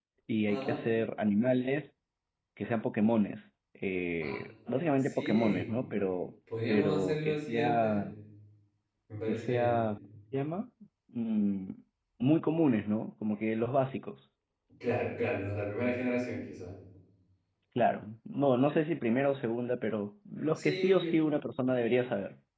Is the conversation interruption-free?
No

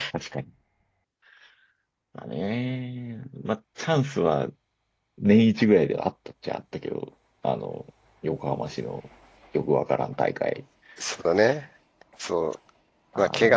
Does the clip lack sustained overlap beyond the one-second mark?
Yes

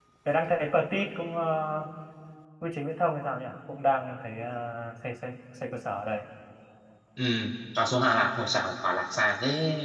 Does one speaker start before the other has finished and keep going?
No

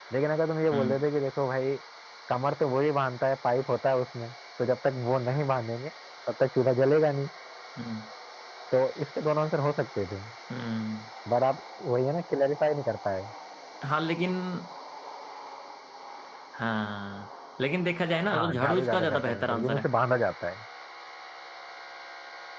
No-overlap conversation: No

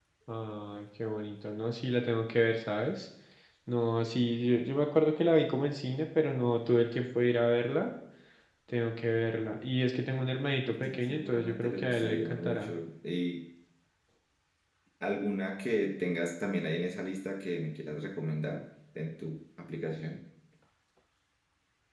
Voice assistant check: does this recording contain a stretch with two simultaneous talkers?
Yes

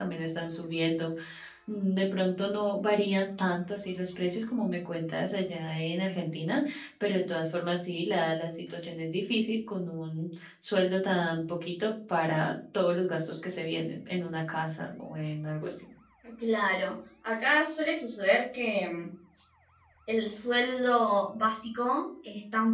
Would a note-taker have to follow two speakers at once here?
No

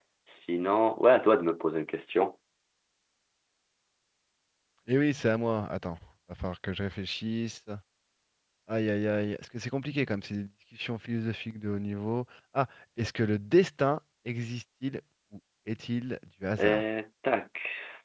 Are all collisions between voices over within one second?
Yes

